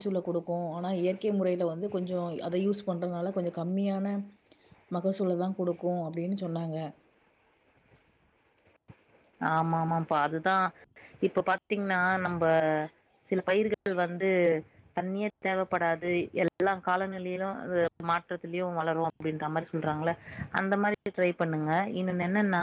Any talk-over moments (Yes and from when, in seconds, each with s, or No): No